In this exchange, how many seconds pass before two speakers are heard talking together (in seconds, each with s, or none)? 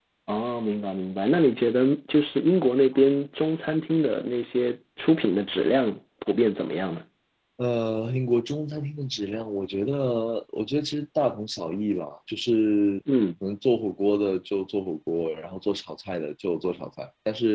none